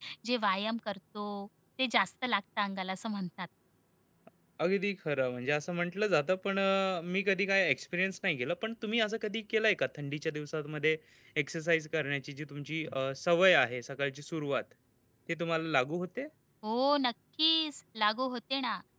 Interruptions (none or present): none